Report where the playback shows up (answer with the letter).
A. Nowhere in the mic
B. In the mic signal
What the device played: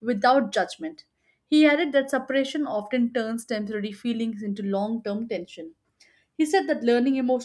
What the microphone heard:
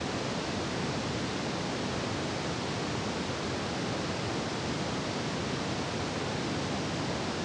A